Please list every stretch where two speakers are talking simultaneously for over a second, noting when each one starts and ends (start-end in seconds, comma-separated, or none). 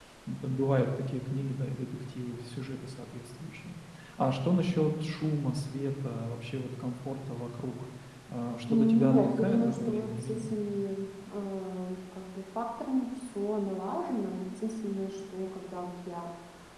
8.7-10.5